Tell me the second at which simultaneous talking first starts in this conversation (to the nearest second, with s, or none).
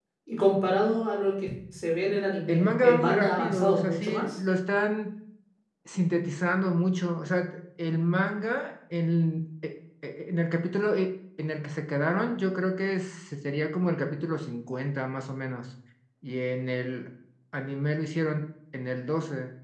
2 s